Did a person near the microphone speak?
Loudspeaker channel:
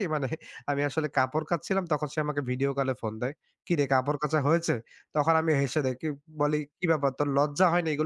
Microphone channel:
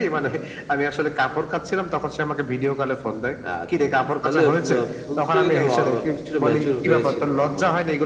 Yes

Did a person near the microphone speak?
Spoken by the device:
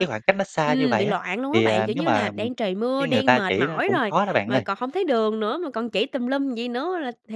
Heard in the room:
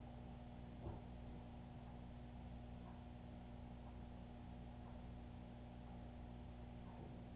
No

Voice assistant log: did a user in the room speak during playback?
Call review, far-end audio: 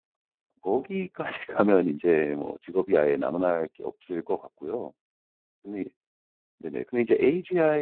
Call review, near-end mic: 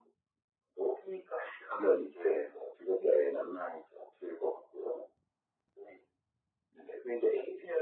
No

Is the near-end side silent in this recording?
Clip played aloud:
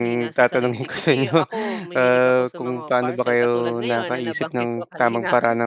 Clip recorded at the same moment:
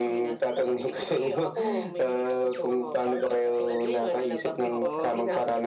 No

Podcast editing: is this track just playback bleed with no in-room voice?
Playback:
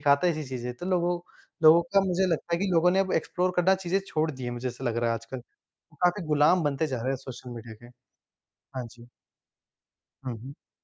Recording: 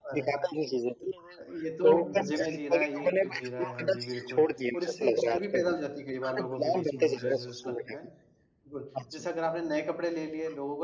No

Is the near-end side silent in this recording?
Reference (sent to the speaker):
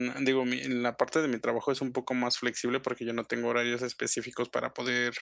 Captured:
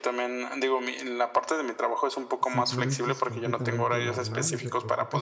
No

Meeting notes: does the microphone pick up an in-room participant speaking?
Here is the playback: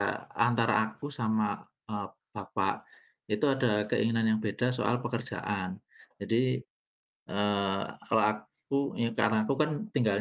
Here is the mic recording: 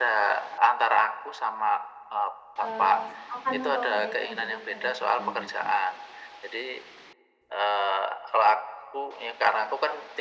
Yes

